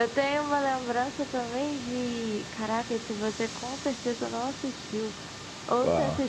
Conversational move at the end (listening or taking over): listening